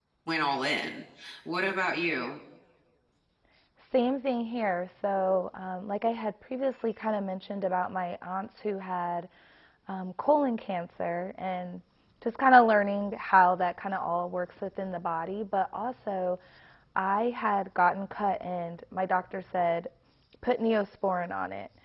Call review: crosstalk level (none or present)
none